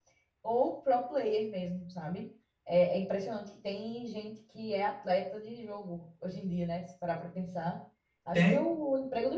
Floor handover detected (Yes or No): No